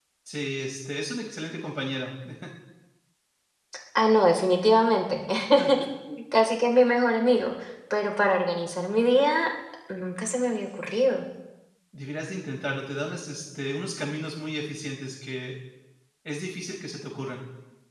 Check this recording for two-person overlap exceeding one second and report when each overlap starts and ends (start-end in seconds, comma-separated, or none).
none